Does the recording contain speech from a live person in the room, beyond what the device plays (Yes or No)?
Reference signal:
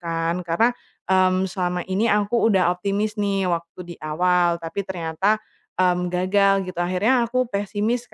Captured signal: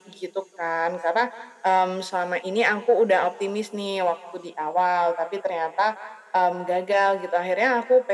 No